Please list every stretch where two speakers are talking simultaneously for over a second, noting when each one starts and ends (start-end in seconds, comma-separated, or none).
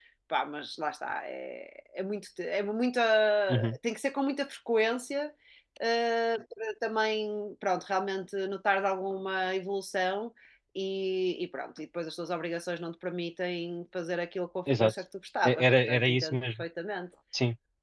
15.4-16.6